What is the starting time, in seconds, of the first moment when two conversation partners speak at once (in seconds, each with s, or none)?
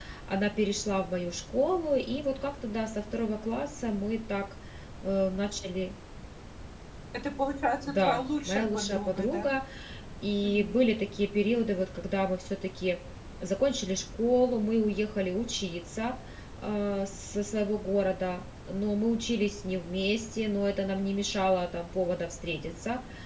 7.8 s